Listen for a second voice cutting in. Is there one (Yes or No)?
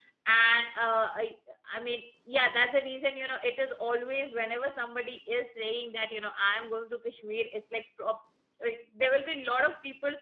No